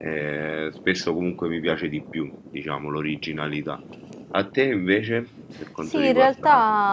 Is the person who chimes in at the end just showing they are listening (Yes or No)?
No